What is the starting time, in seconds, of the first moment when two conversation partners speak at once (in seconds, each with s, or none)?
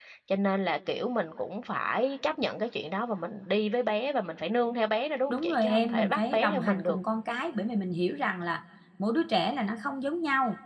5.3 s